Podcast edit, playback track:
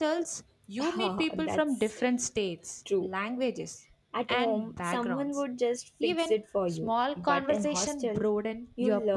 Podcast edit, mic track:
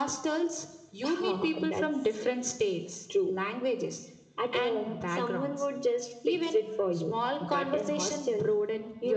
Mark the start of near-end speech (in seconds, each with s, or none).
none